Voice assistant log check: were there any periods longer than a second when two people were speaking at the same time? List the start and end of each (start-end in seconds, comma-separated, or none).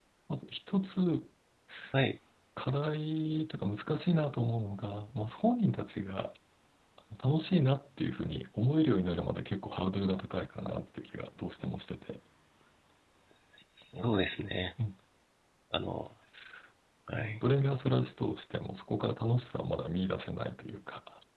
none